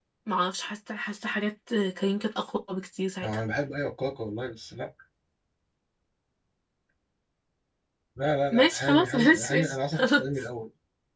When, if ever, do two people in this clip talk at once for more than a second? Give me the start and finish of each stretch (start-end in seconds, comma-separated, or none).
8.5-10.2